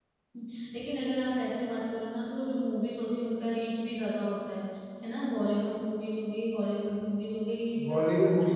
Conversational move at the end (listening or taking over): taking over